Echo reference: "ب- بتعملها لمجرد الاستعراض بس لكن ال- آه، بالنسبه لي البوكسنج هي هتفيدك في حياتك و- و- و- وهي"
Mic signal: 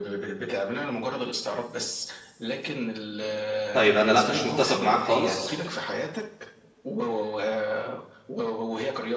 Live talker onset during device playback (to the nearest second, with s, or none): 4 s